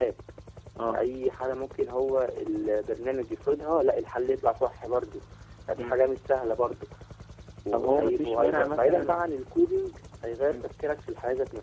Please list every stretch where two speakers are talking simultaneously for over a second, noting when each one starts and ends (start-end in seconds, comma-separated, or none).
7.7-9.3